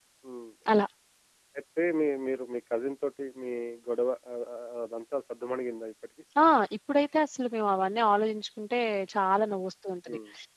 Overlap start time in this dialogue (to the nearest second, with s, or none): none